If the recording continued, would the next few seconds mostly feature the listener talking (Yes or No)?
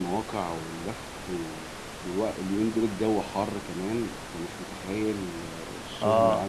No